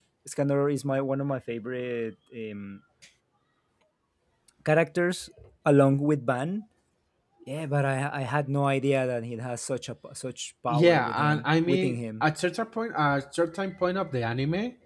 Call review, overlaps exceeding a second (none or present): present